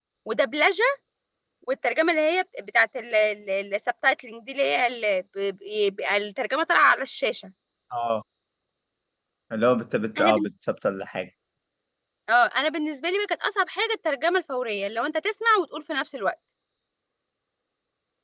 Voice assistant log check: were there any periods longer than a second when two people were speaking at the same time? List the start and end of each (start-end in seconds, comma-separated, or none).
none